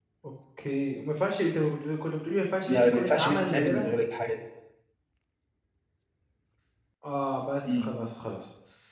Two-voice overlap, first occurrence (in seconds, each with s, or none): 2.7 s